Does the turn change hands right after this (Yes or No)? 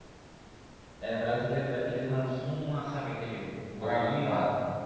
Yes